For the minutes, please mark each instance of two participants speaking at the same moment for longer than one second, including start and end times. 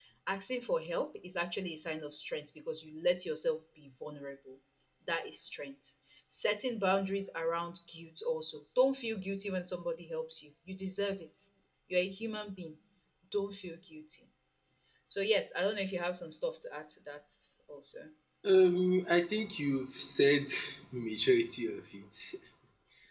none

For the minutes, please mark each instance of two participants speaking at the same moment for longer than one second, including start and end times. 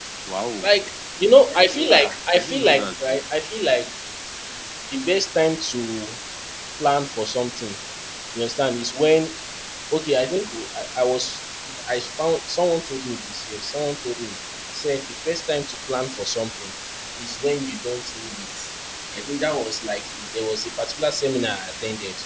1.9-3.2

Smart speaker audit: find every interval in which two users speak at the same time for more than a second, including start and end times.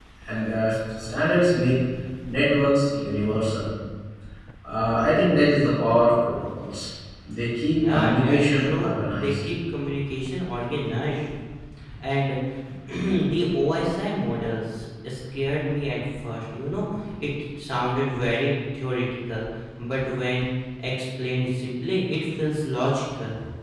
7.7-9.3

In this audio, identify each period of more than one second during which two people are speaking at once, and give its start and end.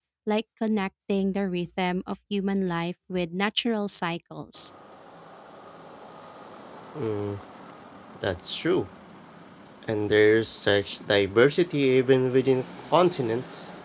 none

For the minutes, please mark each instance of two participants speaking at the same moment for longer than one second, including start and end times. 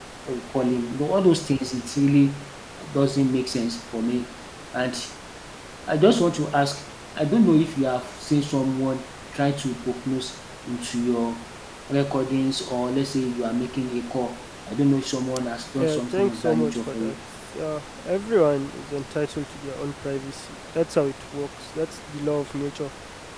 15.8-17.1

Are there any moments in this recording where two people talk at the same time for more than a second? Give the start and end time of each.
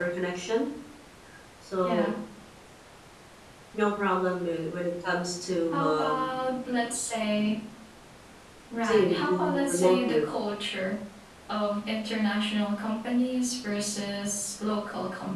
8.8-10.2

